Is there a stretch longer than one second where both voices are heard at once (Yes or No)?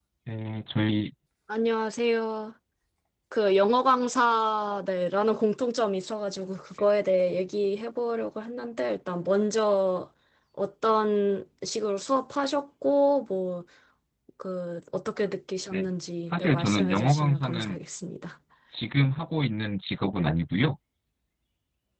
Yes